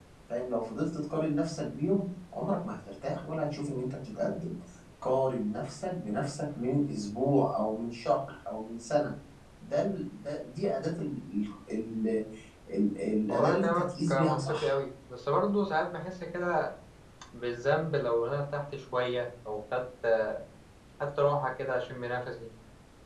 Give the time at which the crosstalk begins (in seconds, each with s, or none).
13.3 s